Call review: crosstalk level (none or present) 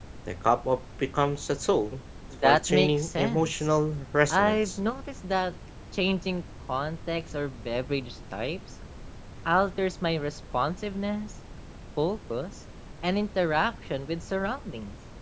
present